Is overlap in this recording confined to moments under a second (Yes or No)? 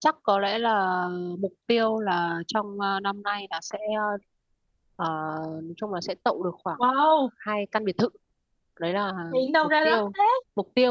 Yes